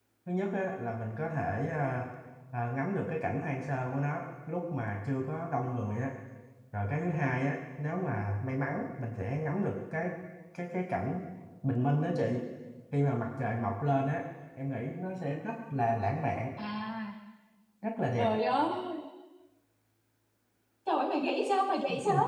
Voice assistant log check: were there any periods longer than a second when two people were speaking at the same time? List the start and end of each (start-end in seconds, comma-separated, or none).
none